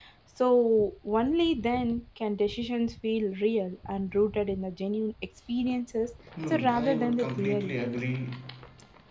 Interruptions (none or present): present